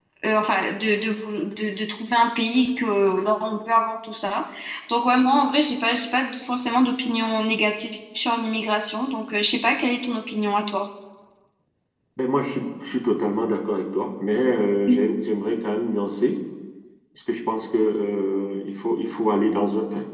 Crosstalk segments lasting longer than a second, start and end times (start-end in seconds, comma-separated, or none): none